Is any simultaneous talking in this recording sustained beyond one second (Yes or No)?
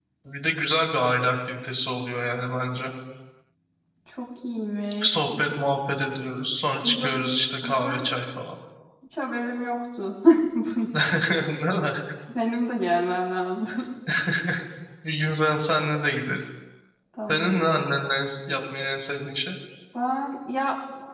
No